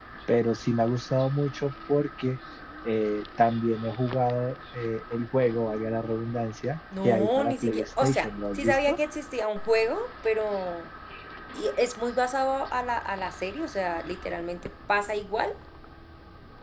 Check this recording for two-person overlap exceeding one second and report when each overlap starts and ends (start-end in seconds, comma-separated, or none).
7.0-9.0